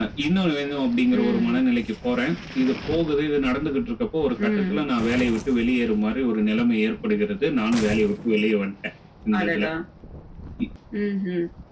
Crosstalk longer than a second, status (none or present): none